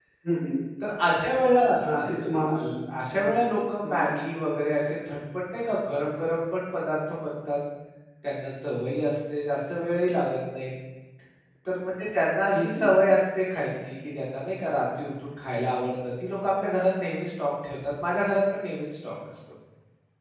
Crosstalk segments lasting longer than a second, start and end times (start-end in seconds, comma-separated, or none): none